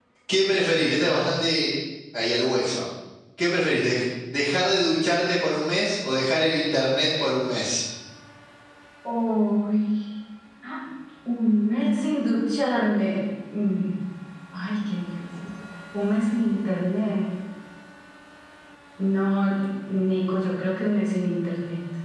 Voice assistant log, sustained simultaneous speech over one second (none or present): none